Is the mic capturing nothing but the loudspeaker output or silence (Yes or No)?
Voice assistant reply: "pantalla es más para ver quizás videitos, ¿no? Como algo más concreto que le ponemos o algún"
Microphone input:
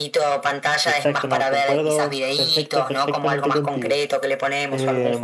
No